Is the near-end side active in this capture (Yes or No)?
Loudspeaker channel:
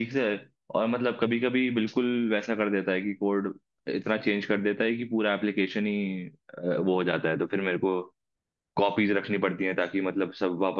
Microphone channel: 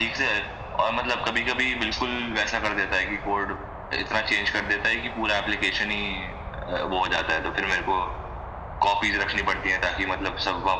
No